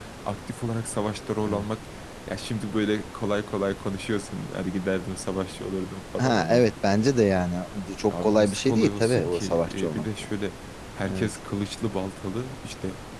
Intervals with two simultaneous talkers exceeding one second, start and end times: 8.1-10.3

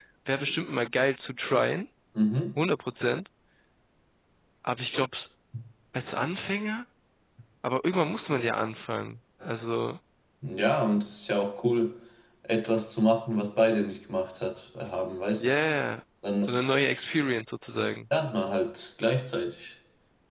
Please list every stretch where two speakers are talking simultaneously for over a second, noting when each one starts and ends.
none

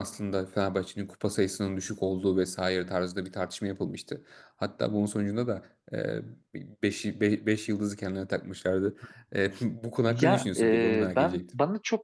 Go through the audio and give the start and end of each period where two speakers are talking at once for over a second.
10.1-11.4

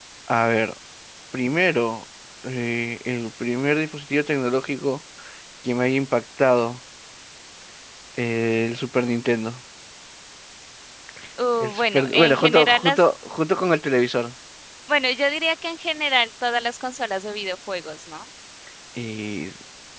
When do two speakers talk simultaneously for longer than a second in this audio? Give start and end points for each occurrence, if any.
11.6-13.0

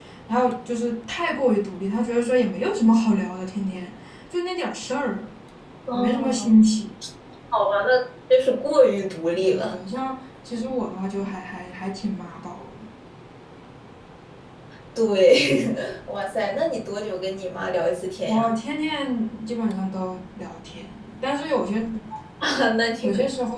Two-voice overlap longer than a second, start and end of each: none

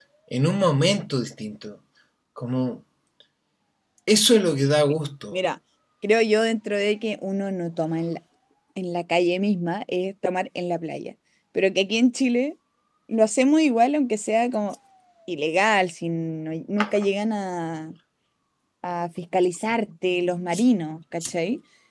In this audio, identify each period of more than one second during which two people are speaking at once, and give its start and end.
none

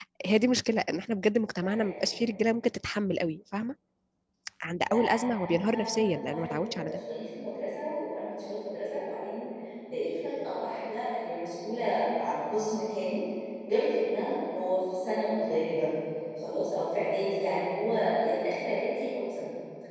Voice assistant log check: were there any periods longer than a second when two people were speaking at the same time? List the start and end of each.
4.9-7.0

